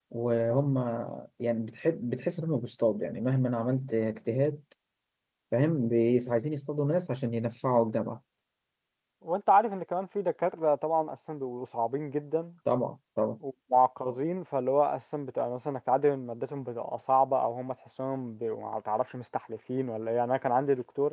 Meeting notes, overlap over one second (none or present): none